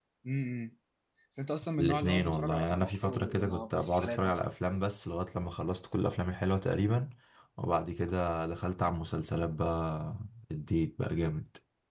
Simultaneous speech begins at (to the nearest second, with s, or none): 2 s